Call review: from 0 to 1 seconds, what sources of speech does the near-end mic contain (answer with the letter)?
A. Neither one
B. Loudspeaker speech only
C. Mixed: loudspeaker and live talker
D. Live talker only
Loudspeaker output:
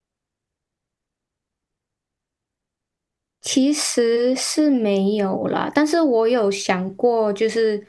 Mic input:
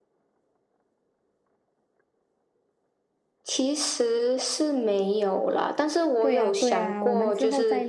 A